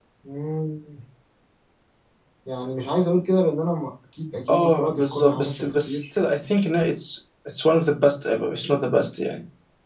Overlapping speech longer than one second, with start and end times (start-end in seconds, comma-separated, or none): 4.5-6.0